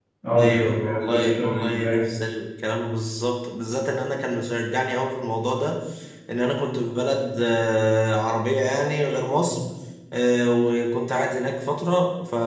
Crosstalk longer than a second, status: present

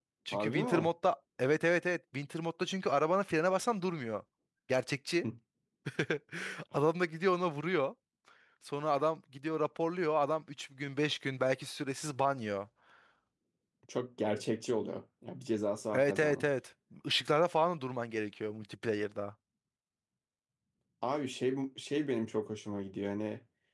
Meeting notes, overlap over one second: none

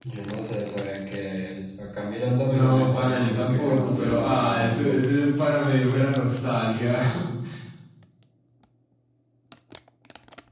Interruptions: present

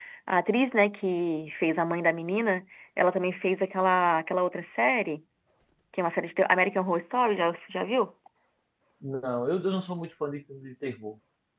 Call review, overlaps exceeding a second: none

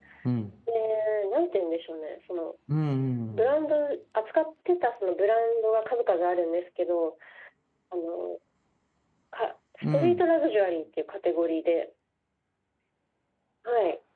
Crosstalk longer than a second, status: none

